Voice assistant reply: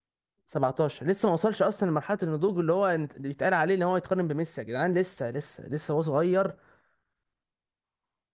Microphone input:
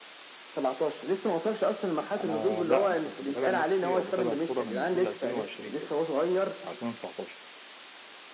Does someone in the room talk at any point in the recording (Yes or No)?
Yes